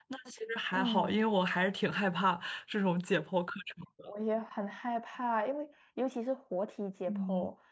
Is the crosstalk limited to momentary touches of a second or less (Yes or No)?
Yes